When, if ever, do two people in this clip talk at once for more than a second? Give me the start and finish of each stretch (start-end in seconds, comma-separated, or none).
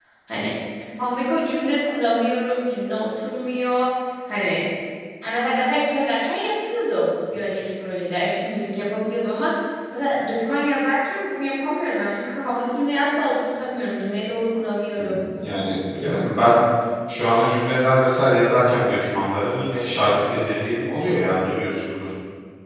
none